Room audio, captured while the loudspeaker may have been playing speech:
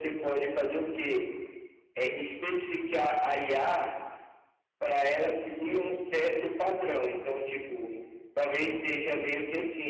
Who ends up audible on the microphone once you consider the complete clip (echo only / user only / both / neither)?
echo only